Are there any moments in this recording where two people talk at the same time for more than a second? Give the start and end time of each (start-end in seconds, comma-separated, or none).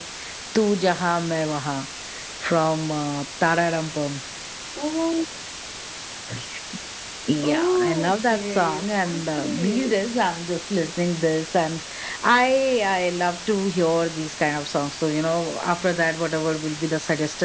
7.4-10.0